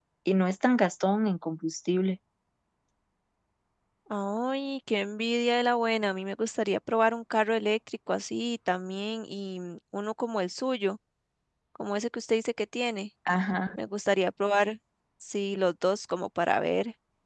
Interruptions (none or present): none